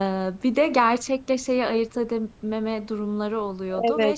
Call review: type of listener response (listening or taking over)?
taking over